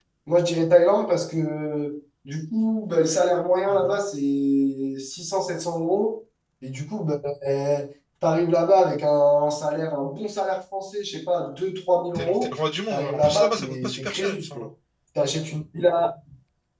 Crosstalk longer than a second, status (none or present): present